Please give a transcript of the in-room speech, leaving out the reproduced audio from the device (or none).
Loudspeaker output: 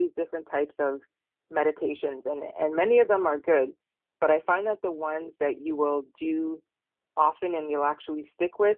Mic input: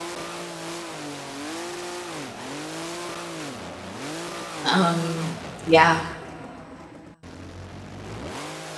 Um, yeah,